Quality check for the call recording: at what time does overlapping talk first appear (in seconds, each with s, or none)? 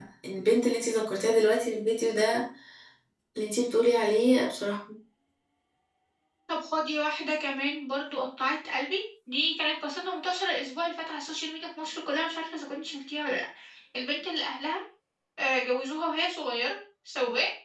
none